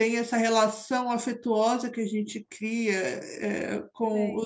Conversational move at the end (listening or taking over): listening